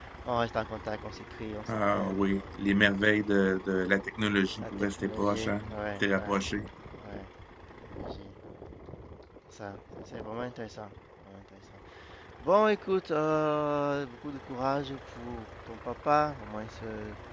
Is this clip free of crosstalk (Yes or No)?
No